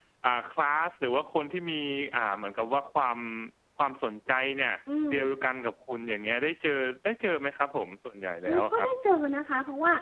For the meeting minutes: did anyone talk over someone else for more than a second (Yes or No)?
No